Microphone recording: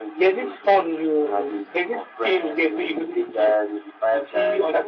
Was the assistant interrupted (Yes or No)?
No